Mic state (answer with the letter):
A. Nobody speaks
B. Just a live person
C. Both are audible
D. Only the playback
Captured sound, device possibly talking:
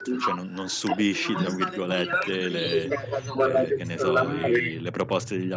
C